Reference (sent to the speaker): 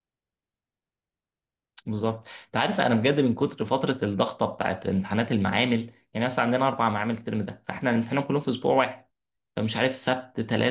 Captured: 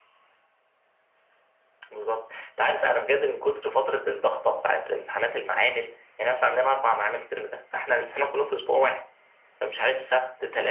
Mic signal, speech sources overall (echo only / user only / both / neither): echo only